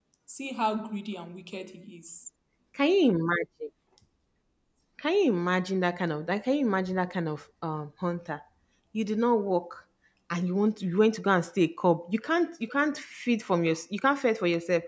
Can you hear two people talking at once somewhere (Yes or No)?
No